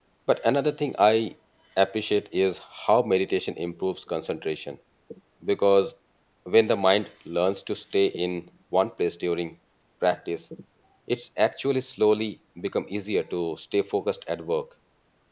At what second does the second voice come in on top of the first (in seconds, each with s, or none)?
none